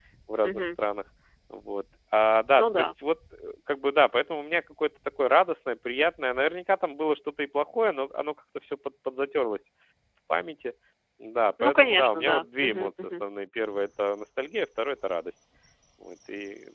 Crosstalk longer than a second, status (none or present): present